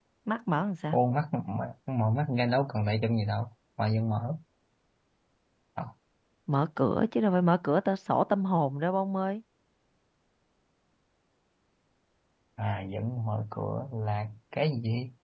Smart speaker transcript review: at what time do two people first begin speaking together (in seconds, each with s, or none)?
none